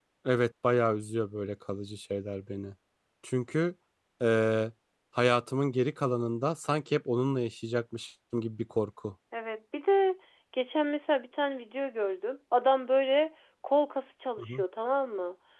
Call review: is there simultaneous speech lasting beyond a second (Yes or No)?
No